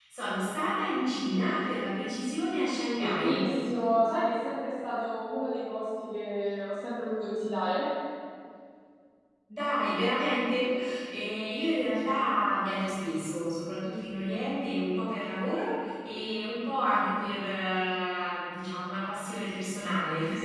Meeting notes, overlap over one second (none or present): none